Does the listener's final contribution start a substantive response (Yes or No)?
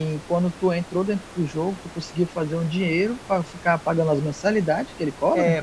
Yes